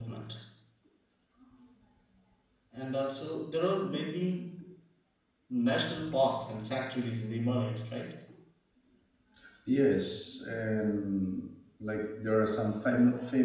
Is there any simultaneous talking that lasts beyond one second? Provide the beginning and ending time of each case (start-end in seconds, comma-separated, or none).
none